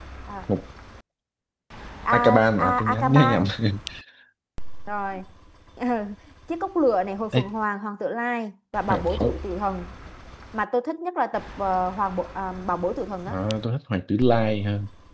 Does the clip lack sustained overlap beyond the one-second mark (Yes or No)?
No